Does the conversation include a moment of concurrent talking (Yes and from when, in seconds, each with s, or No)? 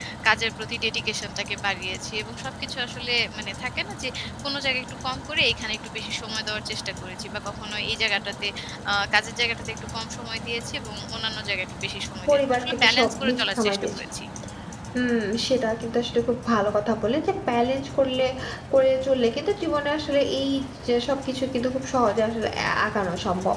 Yes, from 12.3 s